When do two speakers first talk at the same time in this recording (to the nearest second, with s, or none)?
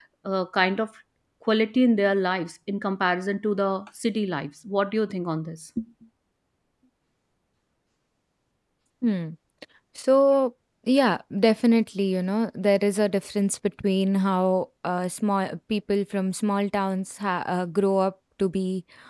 none